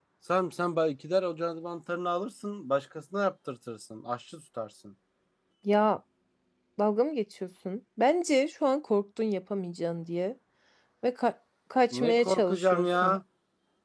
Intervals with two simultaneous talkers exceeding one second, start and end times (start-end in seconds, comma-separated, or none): 11.9-13.2